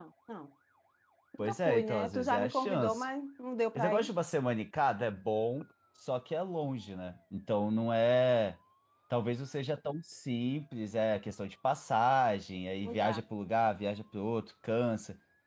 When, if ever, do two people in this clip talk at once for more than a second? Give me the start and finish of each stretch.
1.4-3.0

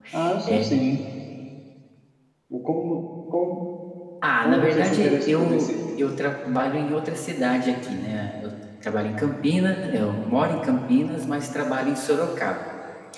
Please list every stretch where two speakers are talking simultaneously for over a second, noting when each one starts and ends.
4.4-5.7

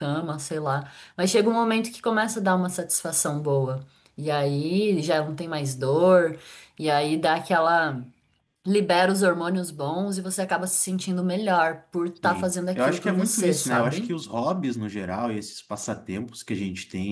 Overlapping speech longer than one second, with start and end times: 12.2-14.1

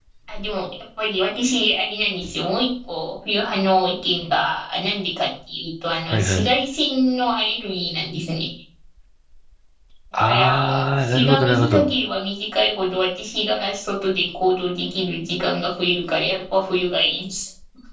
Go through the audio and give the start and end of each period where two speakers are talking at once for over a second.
10.2-11.9

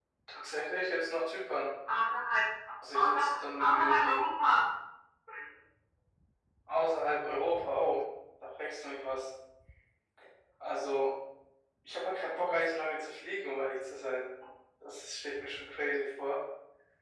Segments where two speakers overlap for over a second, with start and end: 2.9-4.2

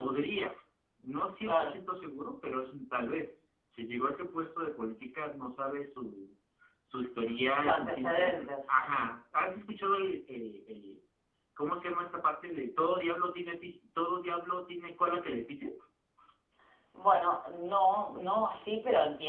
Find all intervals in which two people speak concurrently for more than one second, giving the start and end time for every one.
7.5-8.9

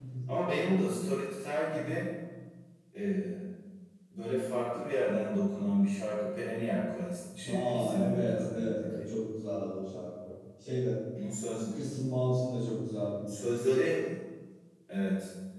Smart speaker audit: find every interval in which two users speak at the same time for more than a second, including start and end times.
7.4-9.1

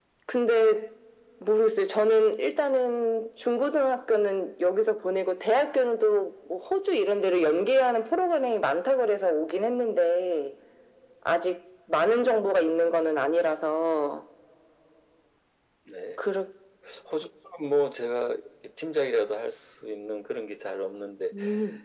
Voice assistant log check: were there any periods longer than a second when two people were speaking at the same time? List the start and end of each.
none

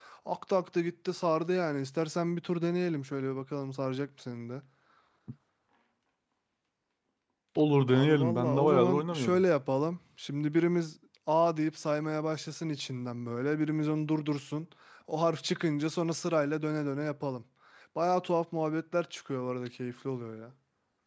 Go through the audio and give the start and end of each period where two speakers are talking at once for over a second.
7.9-9.4

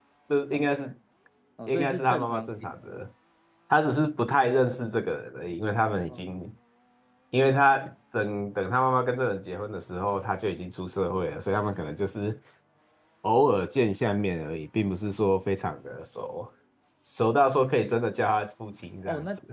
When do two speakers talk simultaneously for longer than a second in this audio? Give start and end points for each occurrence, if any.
1.7-3.0

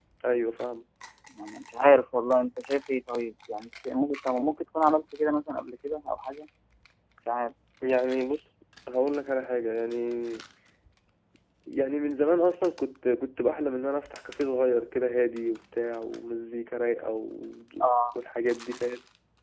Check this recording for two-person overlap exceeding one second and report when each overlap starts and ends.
none

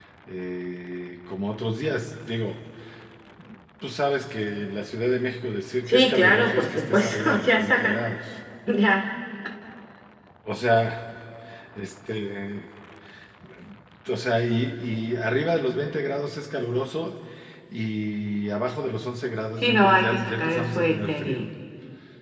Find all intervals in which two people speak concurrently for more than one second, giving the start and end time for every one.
5.9-7.9, 19.6-21.4

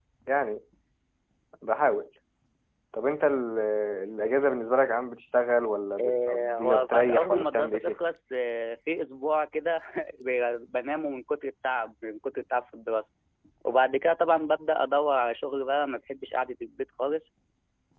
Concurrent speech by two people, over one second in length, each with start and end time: 6.0-8.0

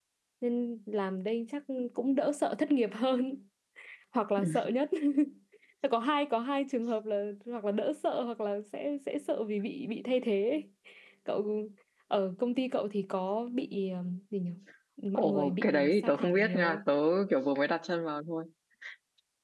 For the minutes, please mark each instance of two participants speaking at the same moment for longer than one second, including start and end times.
15.2-16.8

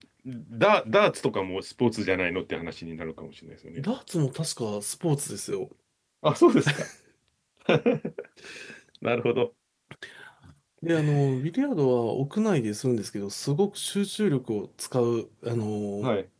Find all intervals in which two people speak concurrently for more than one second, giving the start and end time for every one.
none

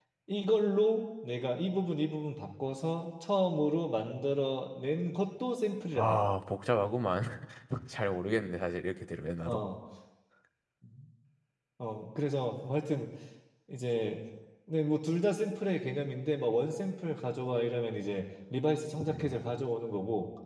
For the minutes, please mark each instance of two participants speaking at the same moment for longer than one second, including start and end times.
none

